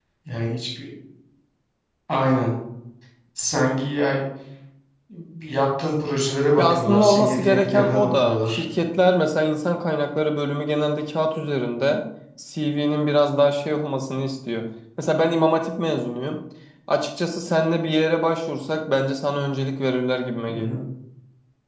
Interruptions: present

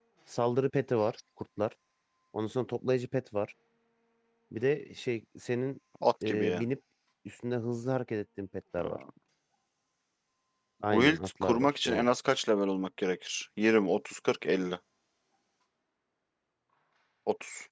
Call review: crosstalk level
present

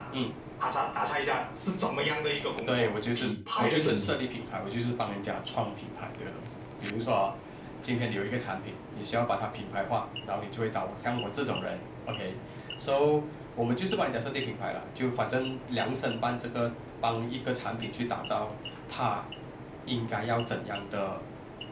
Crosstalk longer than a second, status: present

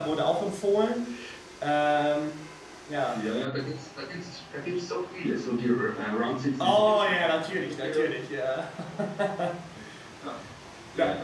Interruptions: present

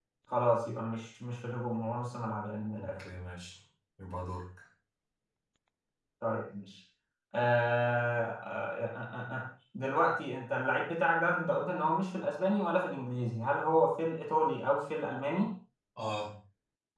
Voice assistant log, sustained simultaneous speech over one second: none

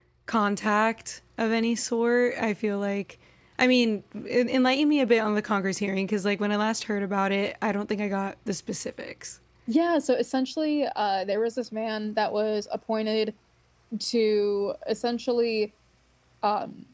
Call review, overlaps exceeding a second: none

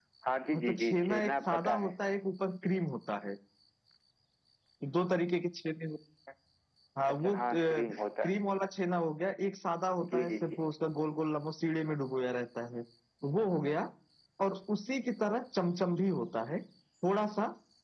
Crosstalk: present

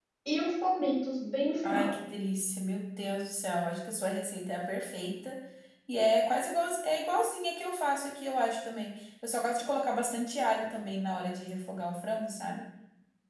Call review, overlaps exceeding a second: none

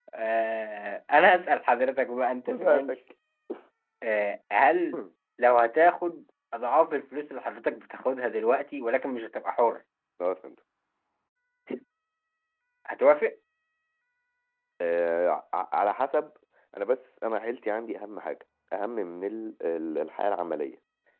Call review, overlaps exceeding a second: none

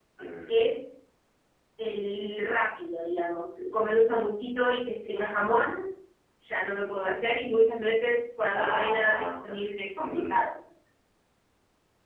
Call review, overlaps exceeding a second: present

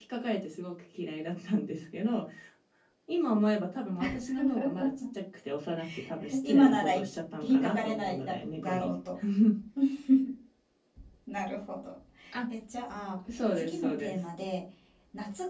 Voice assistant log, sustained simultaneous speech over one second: present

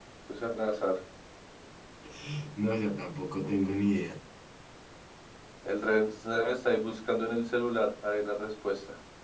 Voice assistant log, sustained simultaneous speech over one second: none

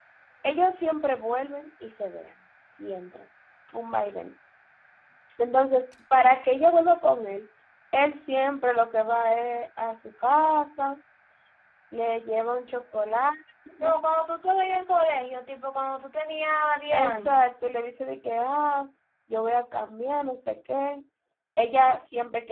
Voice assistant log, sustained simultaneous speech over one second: none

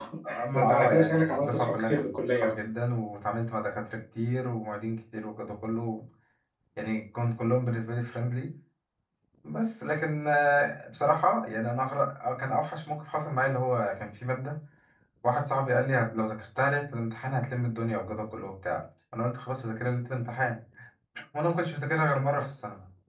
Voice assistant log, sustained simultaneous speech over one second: present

